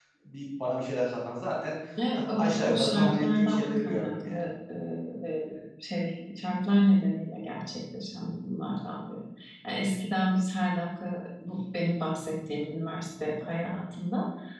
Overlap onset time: 2.1 s

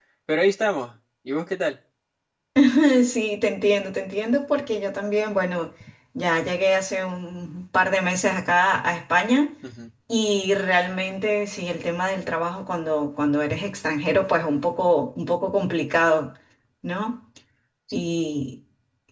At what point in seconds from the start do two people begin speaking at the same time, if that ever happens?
none

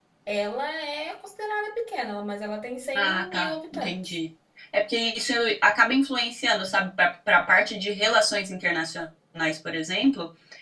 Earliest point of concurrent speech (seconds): 3.0 s

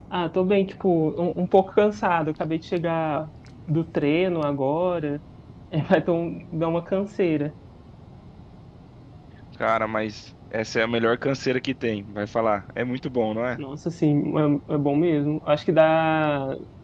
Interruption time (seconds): none

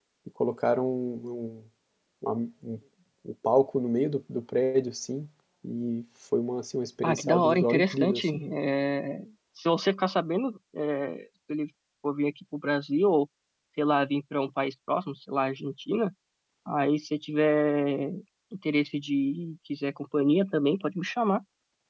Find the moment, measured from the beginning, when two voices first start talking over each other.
7.0 s

